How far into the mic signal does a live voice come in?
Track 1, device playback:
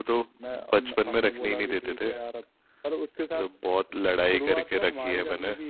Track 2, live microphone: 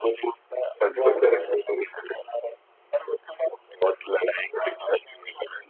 1 s

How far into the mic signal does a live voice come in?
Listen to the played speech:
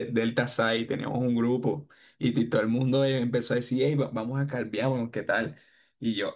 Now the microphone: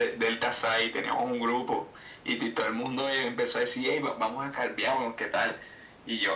none

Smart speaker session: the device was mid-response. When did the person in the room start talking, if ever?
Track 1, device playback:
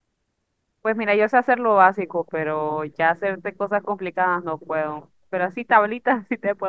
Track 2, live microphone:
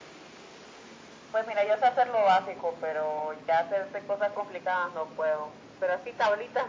none

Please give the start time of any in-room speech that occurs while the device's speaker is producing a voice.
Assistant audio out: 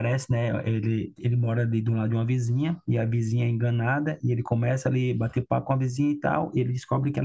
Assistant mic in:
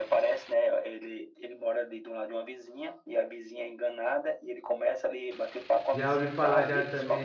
6 s

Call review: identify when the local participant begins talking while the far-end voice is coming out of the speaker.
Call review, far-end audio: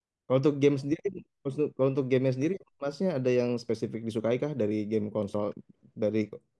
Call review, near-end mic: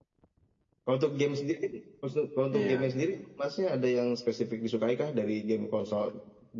3 s

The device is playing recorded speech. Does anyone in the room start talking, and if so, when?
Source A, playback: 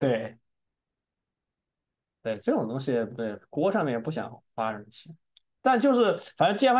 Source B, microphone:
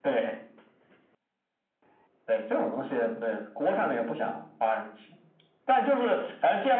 none

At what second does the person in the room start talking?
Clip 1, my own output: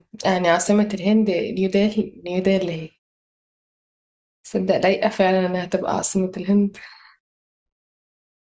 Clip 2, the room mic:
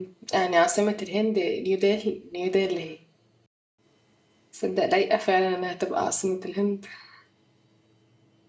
none

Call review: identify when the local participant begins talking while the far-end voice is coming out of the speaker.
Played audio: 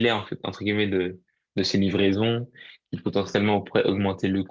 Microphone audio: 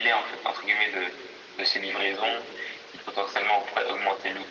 none

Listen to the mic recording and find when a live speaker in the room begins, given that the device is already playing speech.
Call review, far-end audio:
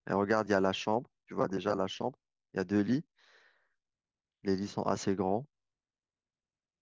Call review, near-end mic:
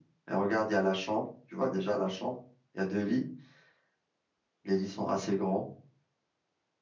none

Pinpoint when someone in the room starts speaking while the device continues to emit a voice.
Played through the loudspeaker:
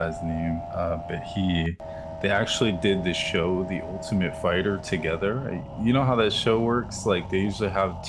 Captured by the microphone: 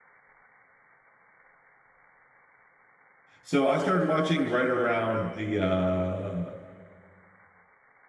3 s

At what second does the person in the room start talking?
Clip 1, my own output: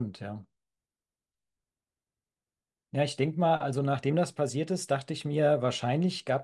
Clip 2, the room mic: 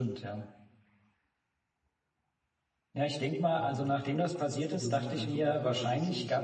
4 s

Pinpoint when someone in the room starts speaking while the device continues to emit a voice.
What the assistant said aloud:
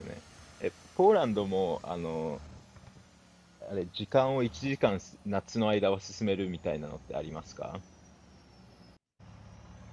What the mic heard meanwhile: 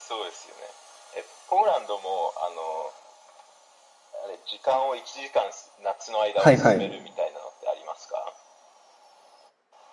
6 s

